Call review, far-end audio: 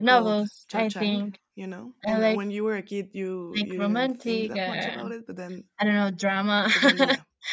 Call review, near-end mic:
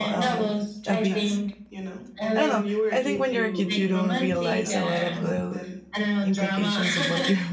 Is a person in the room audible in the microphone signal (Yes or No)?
Yes